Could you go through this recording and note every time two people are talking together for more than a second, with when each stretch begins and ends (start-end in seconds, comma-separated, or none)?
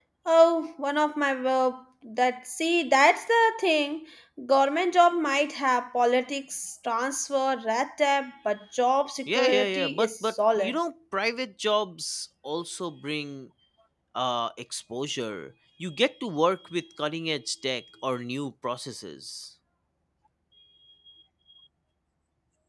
9.4-10.8